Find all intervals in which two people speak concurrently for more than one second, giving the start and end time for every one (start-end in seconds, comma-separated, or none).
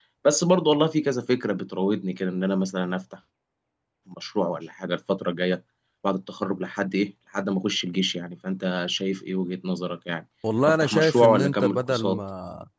10.7-12.2